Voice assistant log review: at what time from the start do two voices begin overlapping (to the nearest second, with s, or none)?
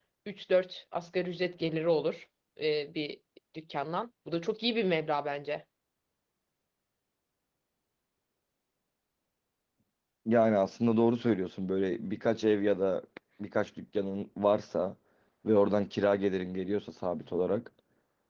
none